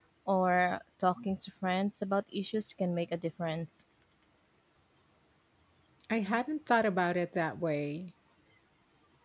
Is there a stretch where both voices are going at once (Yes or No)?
No